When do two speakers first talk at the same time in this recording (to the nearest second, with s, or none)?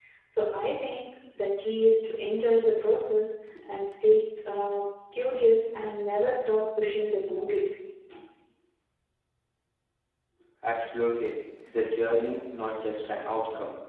none